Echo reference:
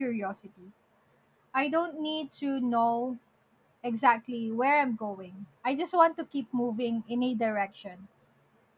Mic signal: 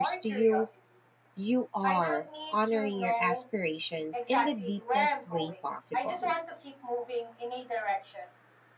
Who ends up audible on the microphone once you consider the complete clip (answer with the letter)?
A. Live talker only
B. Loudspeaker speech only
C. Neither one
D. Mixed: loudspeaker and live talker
D